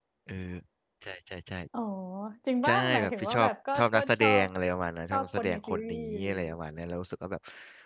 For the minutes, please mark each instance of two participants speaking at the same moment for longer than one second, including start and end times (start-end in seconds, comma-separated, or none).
2.6-4.5, 5.1-6.5